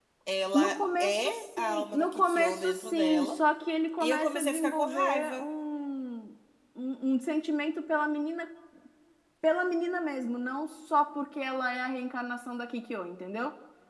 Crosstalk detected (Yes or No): Yes